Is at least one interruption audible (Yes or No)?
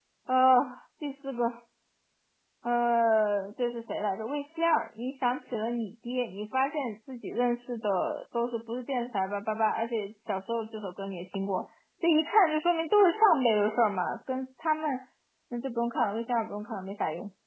No